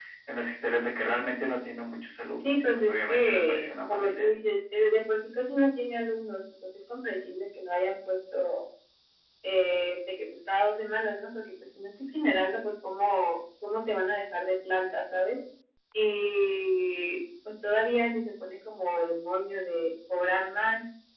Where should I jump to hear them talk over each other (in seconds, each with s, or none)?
2.4 s